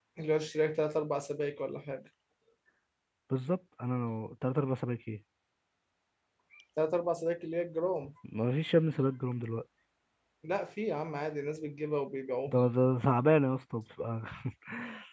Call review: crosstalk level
none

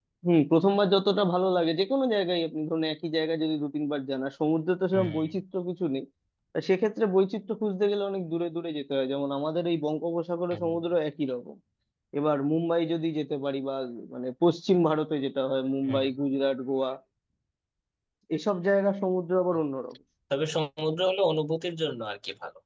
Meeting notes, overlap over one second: none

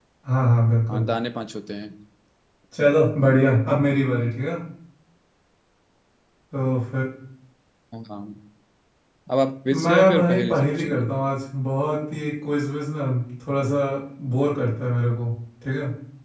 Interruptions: present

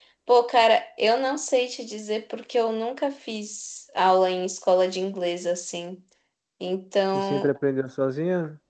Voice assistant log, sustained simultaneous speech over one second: none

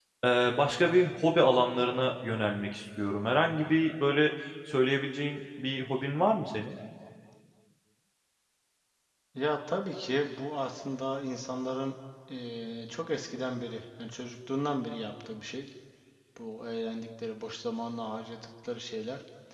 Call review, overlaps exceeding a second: none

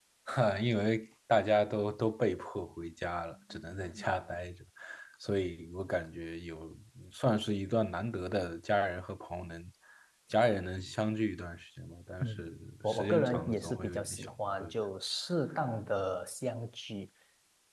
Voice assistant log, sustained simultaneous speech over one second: present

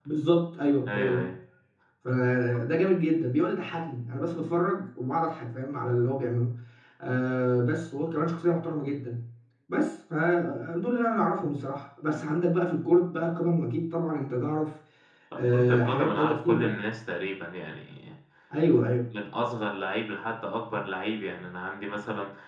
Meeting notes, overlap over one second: present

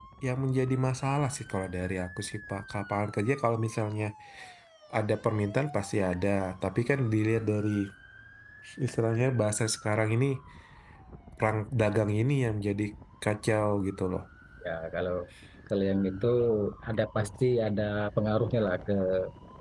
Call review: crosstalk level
none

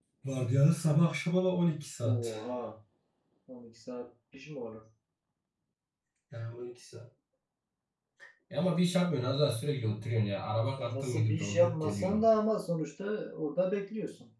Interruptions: present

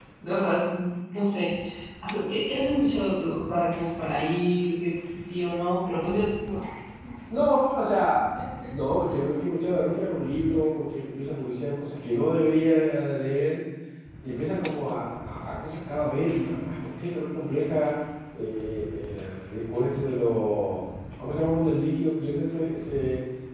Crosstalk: none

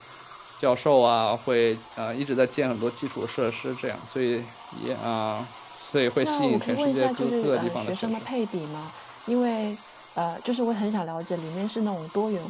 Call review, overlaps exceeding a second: present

